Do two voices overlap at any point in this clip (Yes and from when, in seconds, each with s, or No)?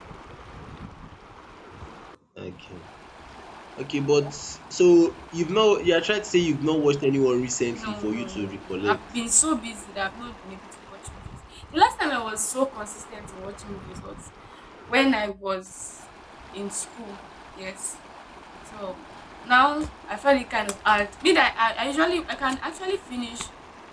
Yes, from 7.8 s